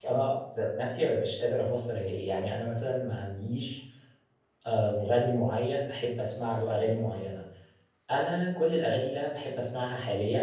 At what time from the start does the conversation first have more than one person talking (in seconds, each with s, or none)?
none